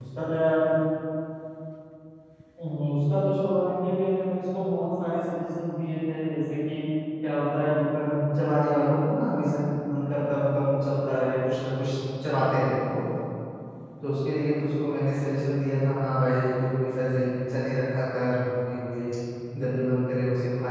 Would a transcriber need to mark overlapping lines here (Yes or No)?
No